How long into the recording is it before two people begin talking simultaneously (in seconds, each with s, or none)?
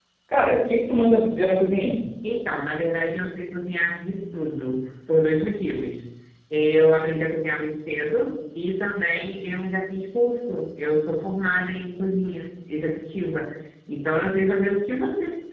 none